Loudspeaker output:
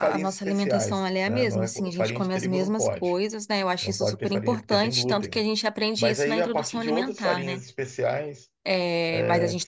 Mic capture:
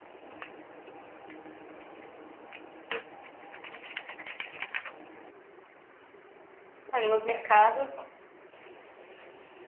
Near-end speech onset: 7 s

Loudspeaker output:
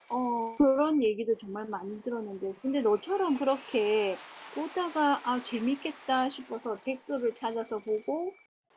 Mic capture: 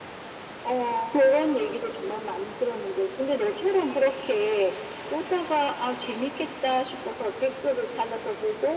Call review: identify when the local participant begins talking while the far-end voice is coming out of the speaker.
none

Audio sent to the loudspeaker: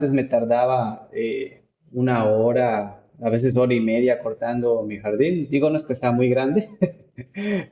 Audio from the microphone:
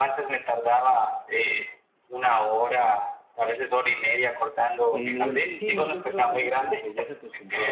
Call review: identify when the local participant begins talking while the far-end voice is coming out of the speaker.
5 s

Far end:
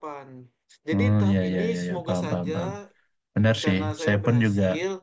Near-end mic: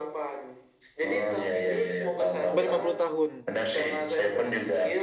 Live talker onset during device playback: 2 s

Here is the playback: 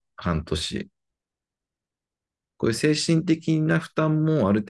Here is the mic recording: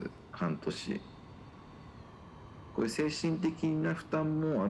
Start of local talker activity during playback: none

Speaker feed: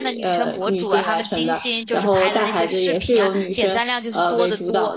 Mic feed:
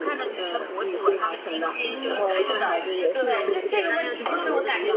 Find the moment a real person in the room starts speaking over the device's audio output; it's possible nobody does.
2 s

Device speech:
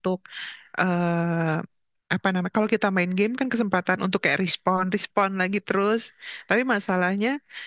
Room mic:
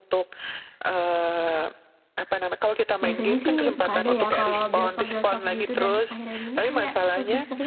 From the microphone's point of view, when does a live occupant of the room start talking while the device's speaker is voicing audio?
3 s

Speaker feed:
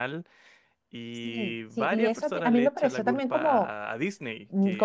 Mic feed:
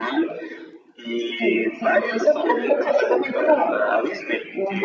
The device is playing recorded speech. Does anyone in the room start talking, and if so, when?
none

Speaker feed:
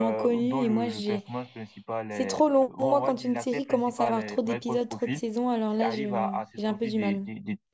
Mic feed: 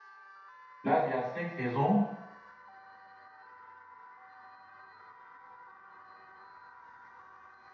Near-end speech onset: 1 s

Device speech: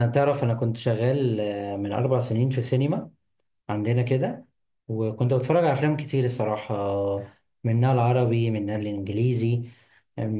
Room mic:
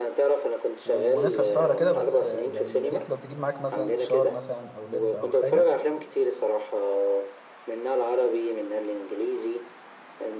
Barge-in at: 1 s

